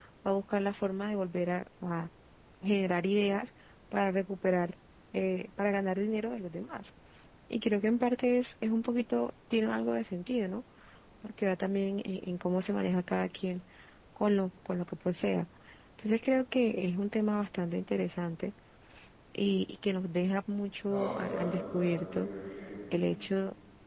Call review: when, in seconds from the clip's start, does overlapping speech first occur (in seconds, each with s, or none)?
20.9 s